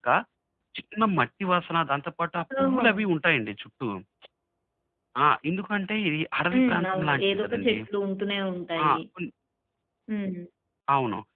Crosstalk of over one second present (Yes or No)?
Yes